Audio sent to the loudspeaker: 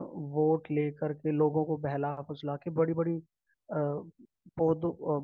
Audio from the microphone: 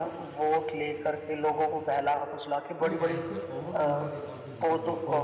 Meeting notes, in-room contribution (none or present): present